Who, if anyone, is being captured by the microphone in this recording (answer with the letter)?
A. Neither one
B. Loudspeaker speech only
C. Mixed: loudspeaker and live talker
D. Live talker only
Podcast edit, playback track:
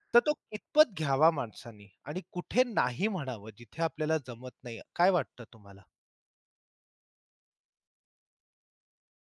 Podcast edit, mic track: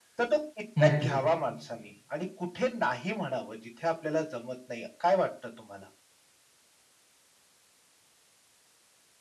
C